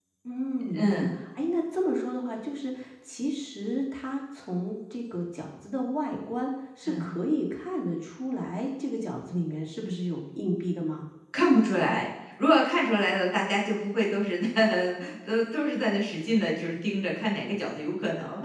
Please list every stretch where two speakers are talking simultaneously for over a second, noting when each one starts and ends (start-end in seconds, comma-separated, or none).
none